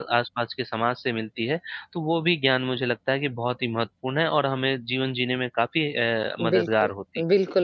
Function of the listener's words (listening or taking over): taking over